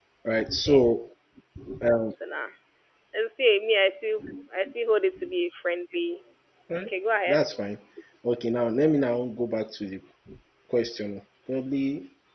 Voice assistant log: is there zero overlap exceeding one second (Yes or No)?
Yes